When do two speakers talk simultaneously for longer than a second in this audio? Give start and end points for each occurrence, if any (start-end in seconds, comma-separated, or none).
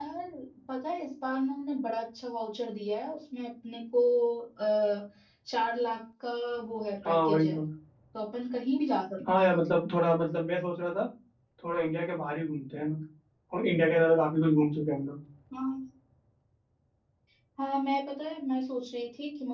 none